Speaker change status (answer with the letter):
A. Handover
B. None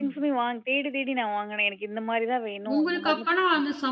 A